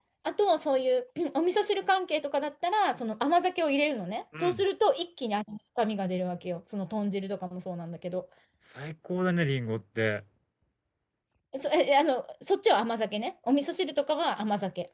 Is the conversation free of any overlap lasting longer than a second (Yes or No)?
Yes